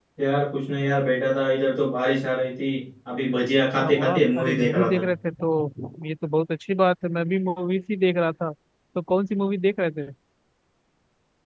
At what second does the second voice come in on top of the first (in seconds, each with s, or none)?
3.8 s